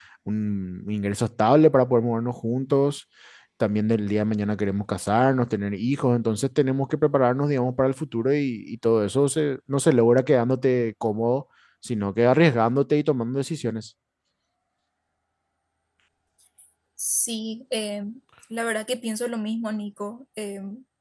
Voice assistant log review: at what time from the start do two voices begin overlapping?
none

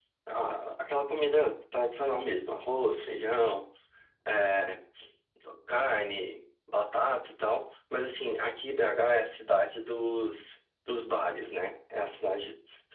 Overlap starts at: none

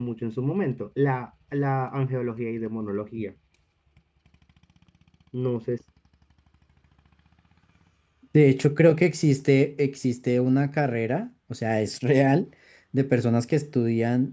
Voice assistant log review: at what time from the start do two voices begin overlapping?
none

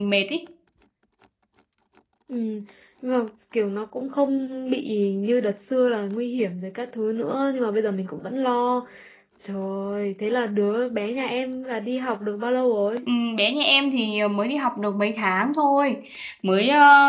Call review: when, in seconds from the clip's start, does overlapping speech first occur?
none

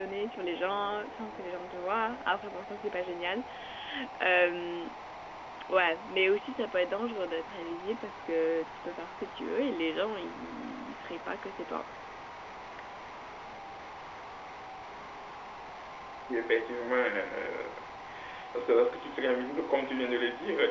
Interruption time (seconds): none

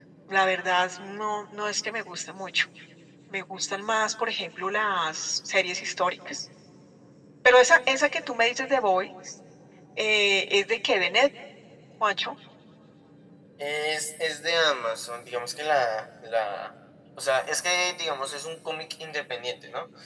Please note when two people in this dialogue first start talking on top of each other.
none

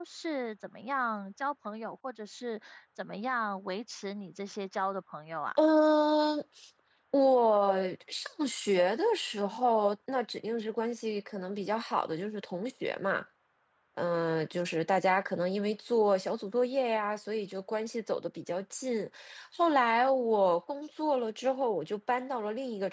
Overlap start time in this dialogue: none

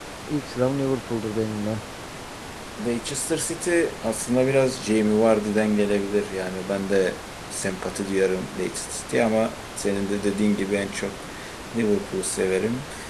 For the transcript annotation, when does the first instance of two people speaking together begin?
none

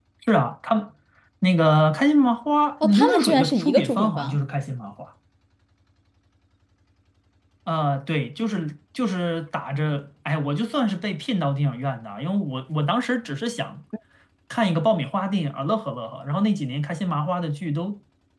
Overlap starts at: 2.8 s

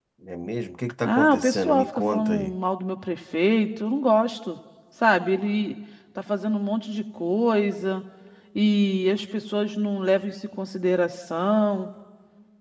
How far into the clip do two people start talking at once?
1.1 s

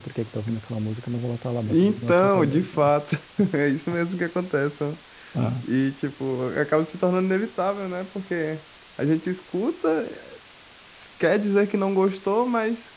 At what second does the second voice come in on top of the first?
1.6 s

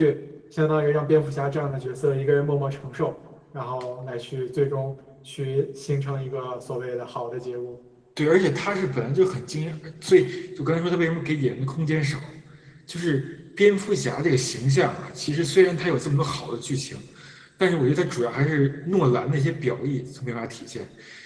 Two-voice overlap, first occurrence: none

